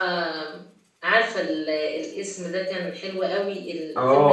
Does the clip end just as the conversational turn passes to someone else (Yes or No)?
Yes